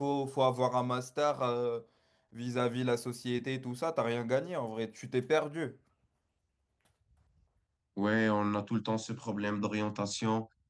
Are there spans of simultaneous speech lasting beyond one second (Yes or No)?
No